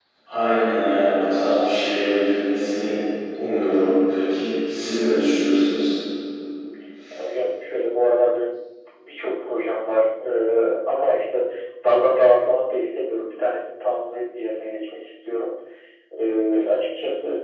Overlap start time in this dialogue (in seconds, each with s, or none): none